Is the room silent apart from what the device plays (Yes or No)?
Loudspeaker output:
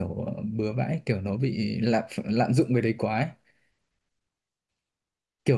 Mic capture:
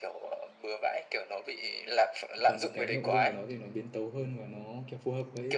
No